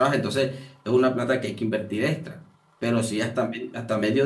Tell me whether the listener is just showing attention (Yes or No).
Yes